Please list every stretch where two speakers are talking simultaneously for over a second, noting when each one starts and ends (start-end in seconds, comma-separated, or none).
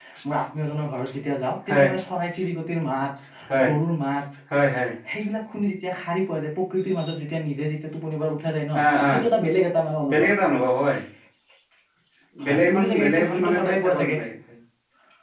12.4-14.2